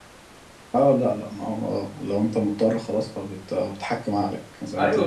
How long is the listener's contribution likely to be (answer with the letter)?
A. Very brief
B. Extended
B